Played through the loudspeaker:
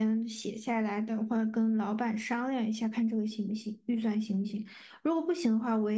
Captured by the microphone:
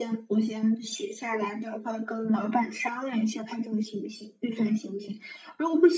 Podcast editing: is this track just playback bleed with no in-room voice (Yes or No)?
Yes